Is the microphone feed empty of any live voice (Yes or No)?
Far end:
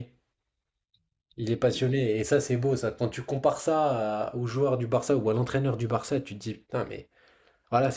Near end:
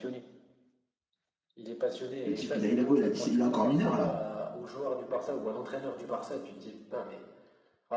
No